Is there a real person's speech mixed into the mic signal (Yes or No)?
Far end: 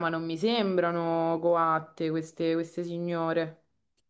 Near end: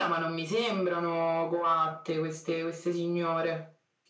No